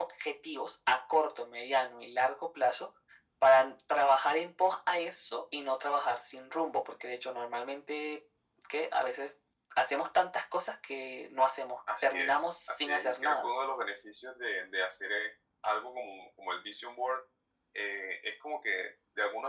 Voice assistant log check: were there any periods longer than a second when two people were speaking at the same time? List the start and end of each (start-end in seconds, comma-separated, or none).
12.0-13.5